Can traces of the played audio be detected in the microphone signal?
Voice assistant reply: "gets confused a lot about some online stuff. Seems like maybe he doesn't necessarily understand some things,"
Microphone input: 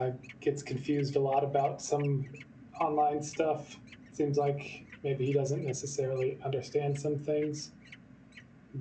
Yes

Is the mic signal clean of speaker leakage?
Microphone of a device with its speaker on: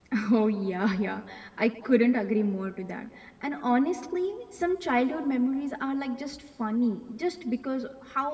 Yes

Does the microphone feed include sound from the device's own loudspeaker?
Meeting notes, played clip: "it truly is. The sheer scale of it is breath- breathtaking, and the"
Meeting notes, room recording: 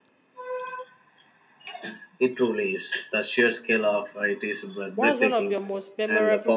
Yes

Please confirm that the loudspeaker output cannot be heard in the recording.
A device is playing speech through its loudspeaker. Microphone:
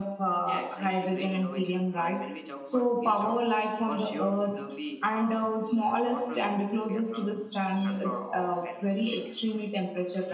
No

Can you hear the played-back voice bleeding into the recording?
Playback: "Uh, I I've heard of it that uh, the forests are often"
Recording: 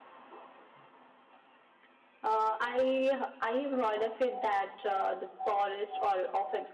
Yes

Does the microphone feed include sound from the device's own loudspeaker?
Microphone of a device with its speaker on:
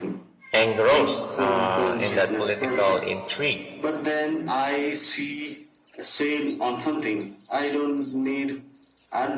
Yes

